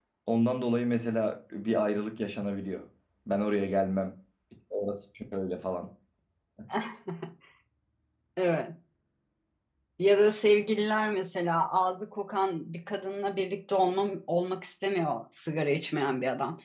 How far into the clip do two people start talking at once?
none

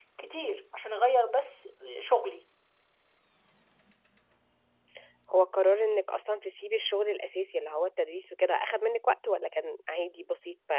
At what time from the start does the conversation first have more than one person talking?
none

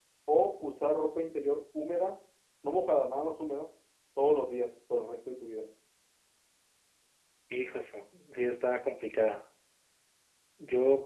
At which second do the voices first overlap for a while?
none

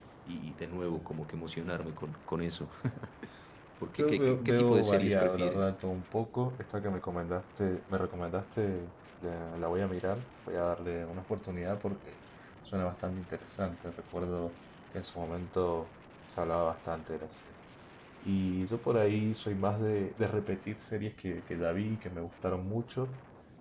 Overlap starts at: 4 s

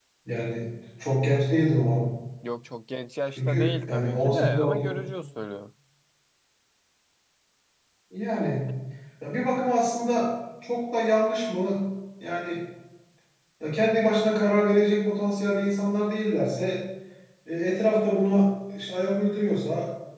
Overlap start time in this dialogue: 3 s

